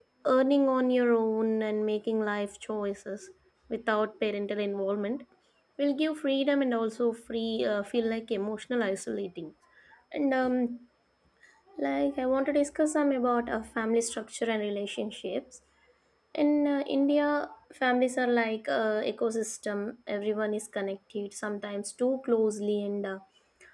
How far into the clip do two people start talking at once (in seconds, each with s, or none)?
none